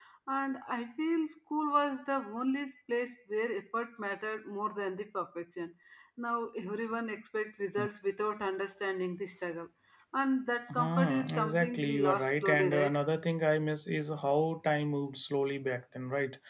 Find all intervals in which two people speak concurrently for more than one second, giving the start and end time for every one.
10.7-13.0

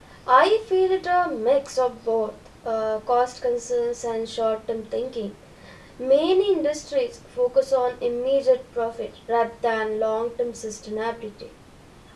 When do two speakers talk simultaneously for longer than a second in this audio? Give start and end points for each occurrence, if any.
none

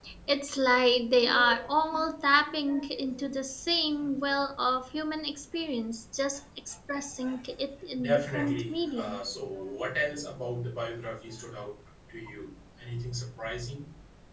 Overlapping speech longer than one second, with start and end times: 8.0-9.3

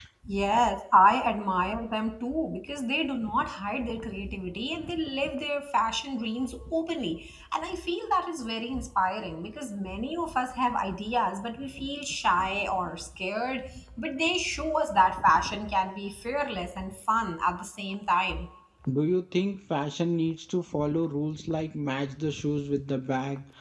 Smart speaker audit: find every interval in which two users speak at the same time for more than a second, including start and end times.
none

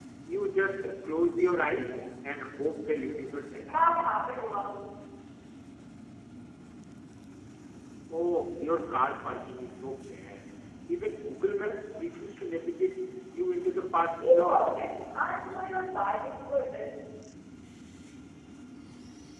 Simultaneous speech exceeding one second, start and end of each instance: none

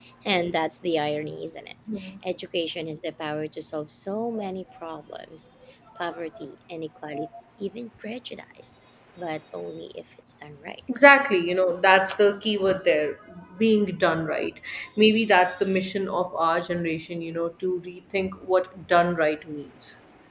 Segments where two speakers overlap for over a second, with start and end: none

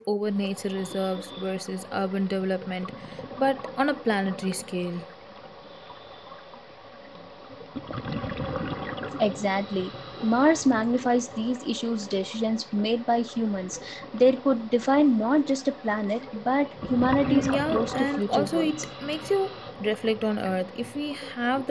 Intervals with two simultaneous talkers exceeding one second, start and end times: 17.2-18.7

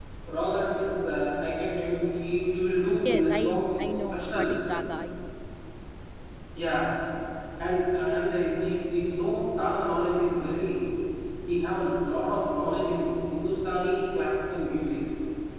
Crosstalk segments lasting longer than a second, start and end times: 3.0-4.5

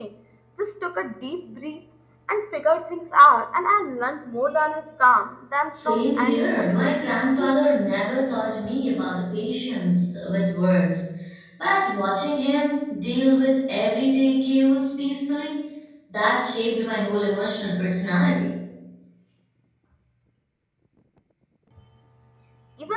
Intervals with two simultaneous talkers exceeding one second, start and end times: 5.7-7.5

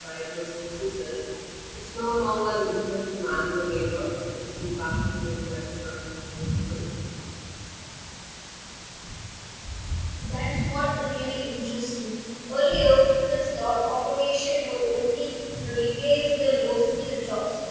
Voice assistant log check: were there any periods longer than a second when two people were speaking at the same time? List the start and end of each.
none

